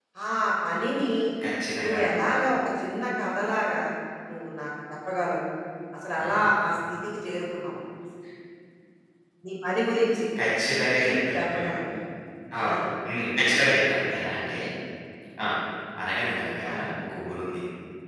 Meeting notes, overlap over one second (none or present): none